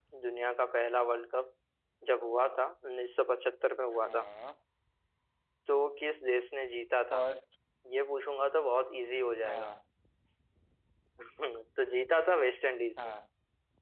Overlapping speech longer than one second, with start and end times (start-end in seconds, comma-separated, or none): none